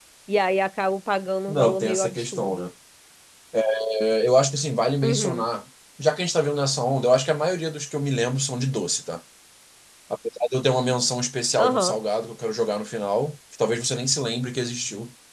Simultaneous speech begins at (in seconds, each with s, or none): 1.5 s